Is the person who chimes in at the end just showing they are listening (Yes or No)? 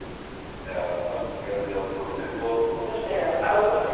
No